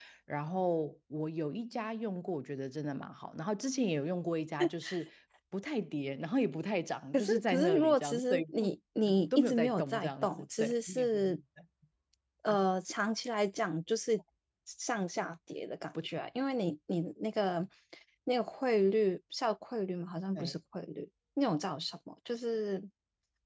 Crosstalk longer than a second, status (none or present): present